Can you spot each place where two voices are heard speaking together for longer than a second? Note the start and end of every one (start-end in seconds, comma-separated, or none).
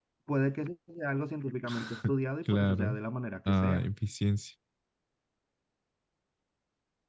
none